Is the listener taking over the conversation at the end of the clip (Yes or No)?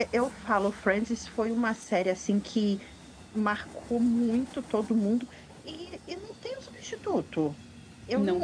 No